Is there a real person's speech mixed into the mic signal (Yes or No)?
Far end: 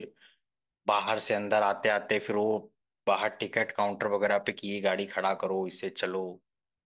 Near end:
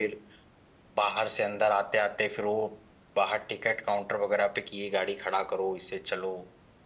No